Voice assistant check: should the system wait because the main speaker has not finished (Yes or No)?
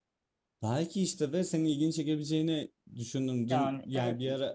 Yes